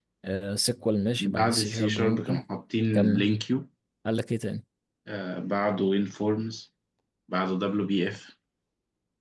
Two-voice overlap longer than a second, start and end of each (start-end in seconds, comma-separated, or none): 1.2-2.4